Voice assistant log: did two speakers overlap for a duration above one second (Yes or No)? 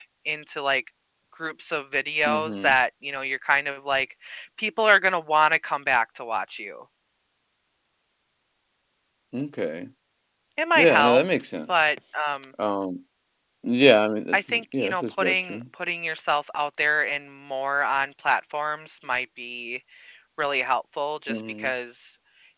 Yes